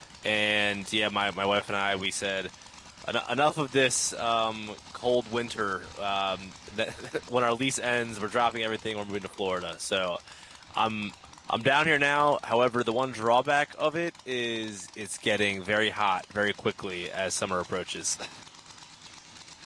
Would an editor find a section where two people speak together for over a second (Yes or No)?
No